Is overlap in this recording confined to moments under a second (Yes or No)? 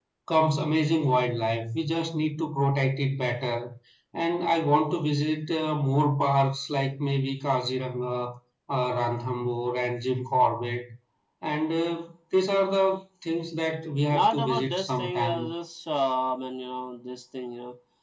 No